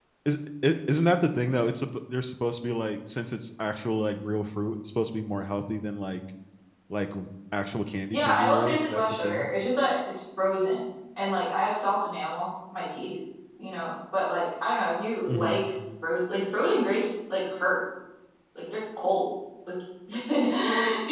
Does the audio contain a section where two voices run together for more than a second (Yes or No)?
Yes